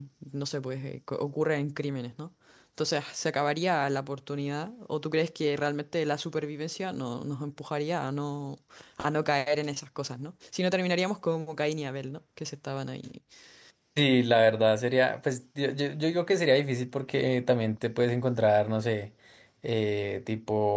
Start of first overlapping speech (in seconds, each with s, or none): none